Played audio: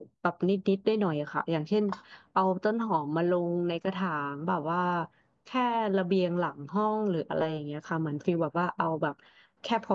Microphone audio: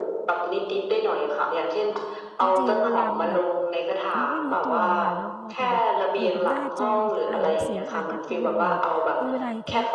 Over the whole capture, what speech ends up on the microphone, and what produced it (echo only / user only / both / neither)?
both